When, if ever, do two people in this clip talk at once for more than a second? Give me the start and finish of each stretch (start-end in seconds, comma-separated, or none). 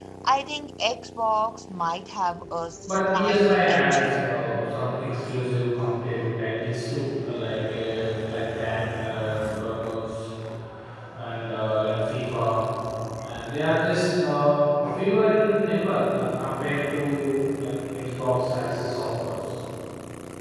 2.9-4.3